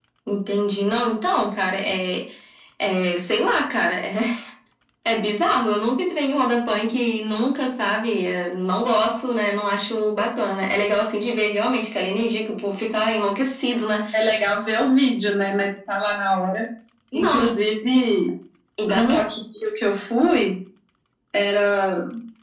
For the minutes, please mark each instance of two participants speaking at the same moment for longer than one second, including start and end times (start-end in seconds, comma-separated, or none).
none